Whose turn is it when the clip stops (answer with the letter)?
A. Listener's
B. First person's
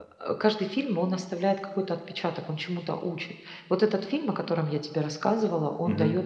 B